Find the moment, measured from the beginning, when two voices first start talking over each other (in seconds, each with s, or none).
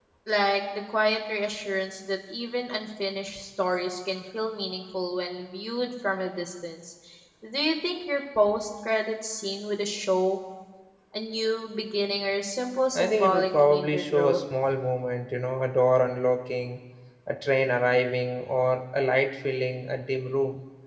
12.9 s